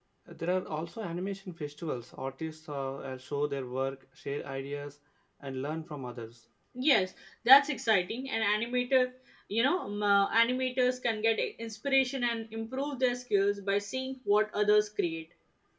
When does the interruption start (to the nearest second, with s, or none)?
none